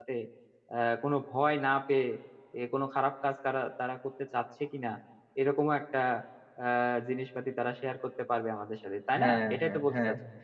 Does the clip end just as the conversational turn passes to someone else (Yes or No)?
Yes